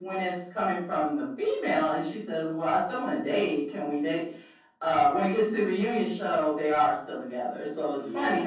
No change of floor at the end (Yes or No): Yes